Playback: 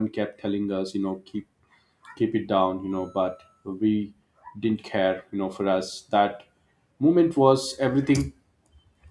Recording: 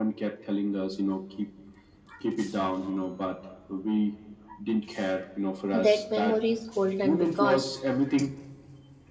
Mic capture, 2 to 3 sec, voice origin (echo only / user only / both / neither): echo only